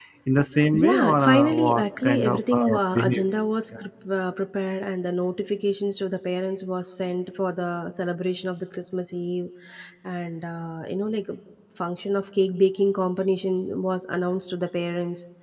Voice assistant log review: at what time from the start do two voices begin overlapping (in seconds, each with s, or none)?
0.7 s